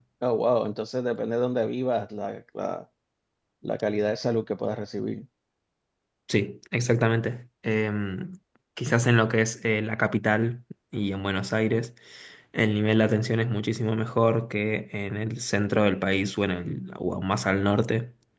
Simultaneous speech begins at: none

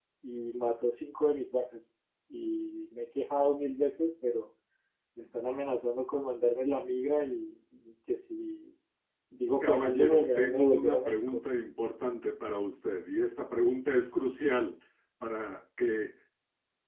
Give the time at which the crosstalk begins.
10 s

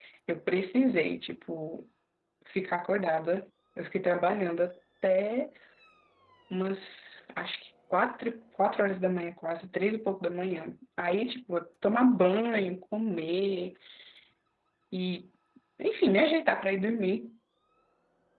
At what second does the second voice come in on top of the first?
none

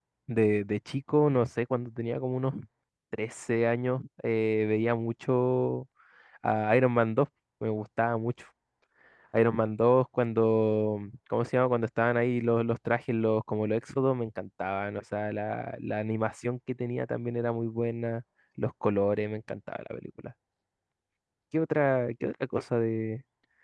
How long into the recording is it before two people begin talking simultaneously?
none

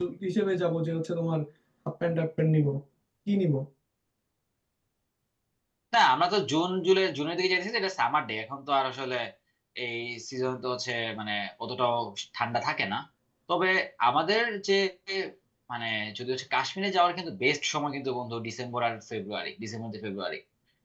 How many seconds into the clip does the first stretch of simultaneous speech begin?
none

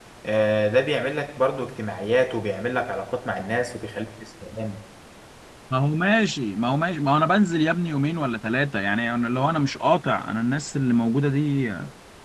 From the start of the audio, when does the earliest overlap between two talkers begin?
none

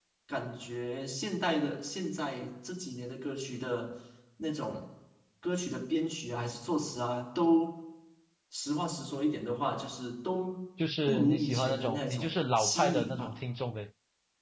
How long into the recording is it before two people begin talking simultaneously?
11 s

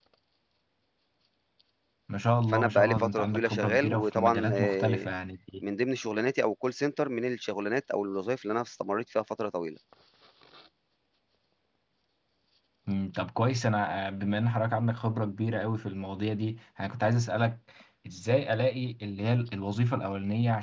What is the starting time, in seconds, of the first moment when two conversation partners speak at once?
2 s

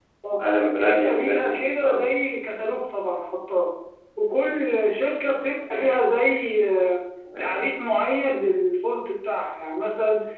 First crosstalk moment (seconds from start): 1 s

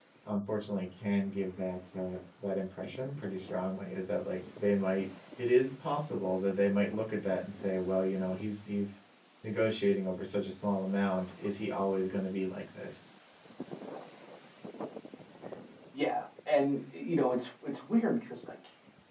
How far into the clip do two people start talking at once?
none

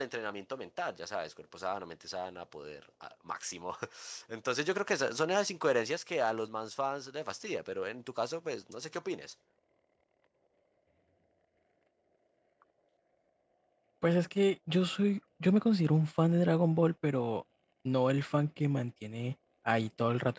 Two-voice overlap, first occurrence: none

